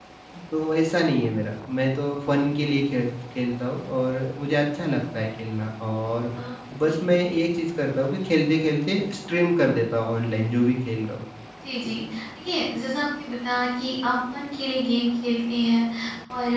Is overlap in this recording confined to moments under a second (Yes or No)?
Yes